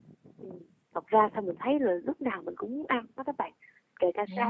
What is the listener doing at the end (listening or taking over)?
listening